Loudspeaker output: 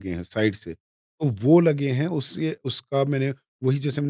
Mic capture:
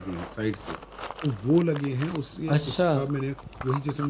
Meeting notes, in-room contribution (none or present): present